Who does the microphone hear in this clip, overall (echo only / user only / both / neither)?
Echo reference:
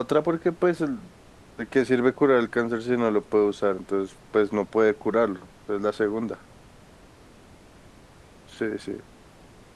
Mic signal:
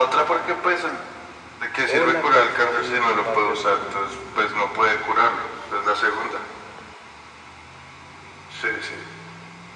both